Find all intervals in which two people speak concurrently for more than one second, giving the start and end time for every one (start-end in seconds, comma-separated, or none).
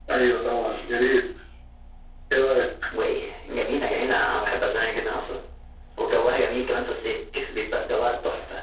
none